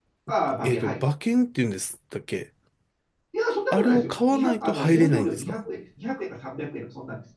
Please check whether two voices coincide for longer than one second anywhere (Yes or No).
Yes